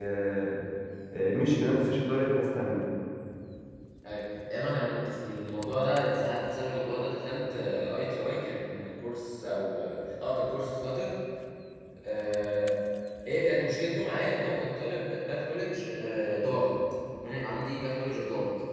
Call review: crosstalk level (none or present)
none